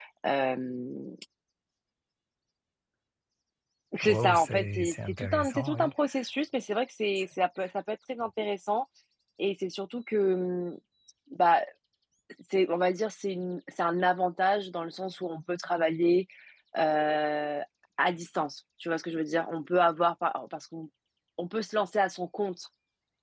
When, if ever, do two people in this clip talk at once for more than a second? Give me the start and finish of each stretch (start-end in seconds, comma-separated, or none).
4.0-5.9